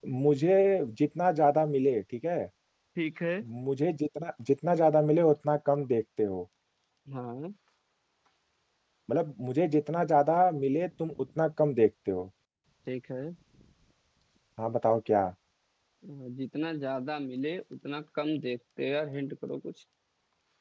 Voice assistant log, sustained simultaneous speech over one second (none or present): none